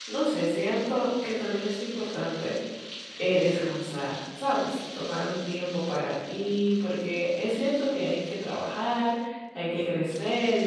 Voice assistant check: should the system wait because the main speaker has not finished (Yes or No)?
Yes